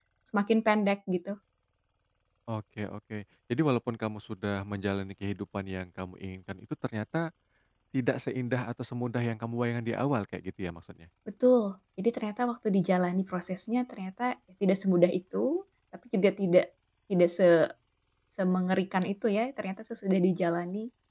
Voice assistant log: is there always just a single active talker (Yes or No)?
Yes